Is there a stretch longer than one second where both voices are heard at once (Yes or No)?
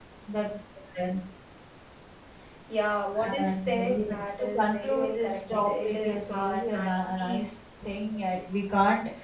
Yes